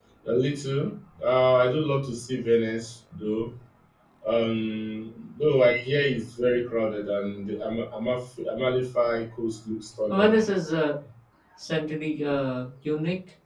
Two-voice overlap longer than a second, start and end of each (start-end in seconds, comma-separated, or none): none